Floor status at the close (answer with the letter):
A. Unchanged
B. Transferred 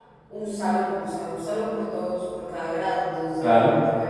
A